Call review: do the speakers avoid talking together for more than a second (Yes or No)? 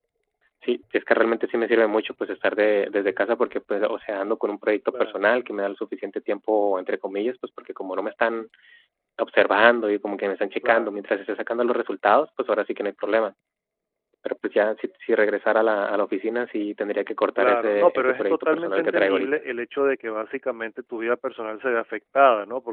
No